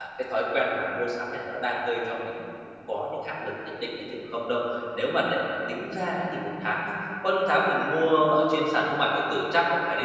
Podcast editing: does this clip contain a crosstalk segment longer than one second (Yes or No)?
No